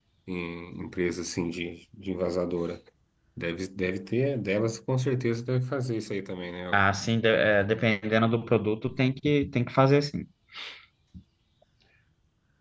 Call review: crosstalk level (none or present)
none